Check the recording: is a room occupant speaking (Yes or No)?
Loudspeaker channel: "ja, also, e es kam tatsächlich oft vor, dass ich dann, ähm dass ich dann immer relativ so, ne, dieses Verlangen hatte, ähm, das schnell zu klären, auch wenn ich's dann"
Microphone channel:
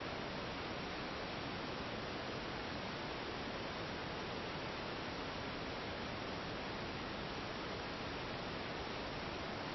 No